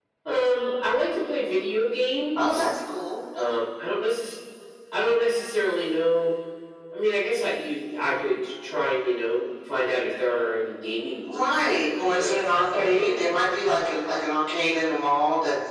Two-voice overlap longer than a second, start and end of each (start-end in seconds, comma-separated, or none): 11.3-13.1